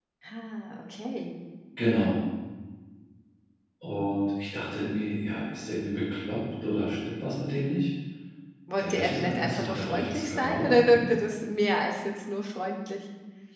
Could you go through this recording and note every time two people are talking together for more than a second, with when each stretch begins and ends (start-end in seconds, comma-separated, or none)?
8.8-11.0